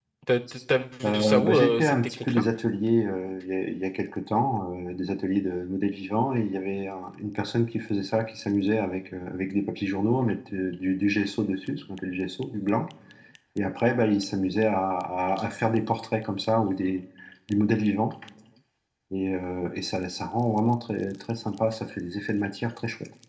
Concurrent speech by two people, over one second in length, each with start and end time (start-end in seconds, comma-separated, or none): 1.1-2.4